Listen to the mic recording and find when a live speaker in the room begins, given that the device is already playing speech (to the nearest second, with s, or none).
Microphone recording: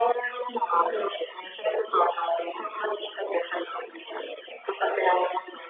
none